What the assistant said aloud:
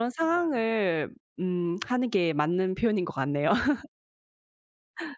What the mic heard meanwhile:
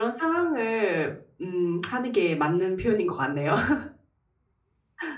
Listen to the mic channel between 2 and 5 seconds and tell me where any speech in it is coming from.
echo only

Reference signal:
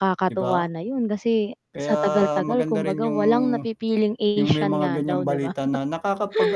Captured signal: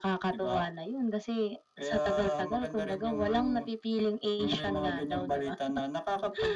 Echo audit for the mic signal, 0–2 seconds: echo only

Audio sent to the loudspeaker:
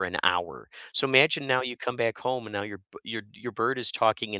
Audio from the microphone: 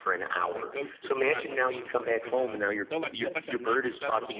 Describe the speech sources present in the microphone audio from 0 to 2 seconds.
both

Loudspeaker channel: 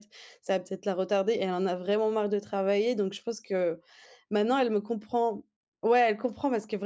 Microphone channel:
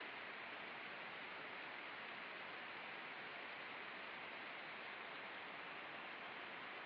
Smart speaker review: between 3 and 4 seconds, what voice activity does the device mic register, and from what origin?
neither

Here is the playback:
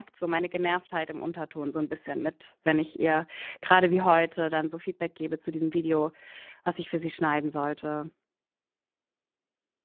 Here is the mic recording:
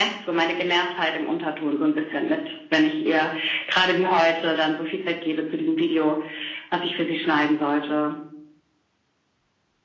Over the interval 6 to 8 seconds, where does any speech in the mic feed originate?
echo only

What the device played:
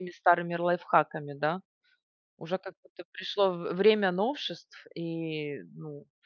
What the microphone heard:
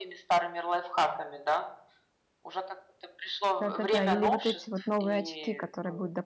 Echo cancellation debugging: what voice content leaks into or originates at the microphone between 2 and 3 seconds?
echo only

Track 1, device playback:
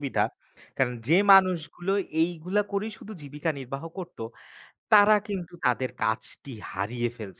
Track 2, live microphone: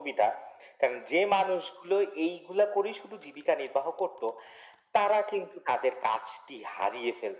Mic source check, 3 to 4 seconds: echo only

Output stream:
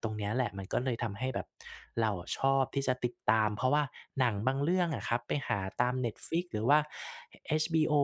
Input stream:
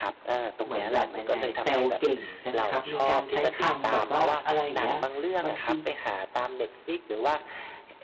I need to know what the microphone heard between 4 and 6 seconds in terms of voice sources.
both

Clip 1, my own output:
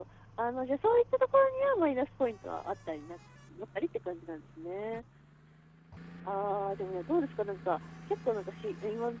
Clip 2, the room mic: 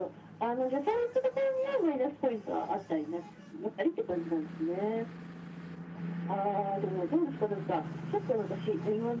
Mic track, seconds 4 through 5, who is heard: echo only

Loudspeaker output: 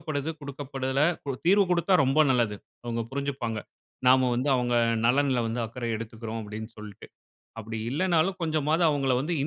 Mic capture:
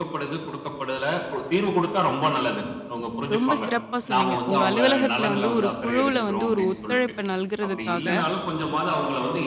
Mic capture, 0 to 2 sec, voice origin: echo only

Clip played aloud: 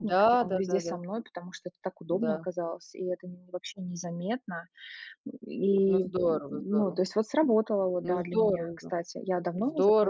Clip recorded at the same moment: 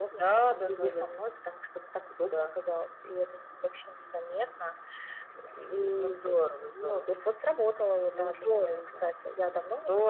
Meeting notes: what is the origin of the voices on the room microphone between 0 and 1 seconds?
echo only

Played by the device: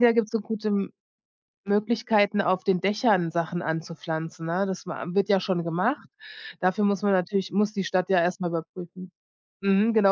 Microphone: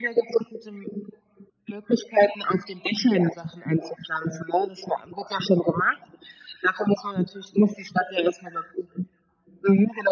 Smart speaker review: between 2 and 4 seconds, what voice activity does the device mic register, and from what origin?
echo only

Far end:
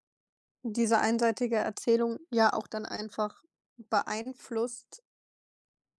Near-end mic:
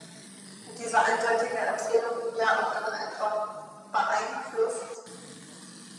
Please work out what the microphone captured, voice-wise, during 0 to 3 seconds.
echo only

